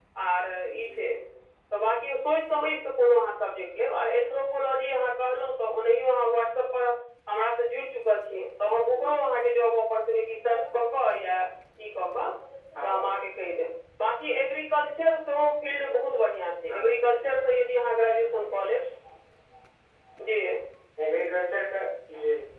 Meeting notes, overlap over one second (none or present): none